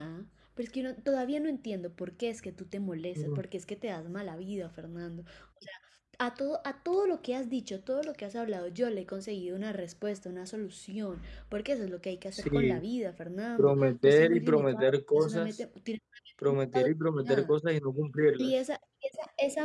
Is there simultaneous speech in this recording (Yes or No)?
Yes